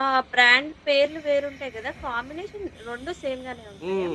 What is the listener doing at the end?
taking over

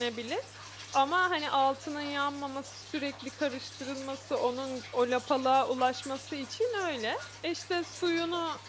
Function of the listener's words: listening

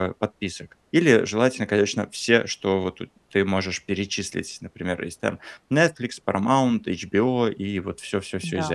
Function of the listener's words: listening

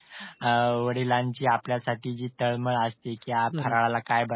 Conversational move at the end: listening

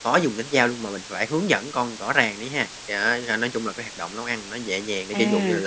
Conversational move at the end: listening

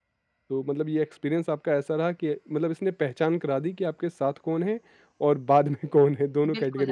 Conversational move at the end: taking over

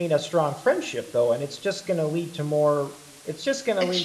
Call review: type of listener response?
listening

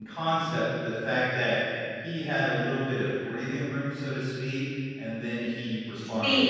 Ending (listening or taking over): taking over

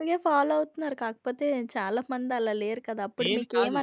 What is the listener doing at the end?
listening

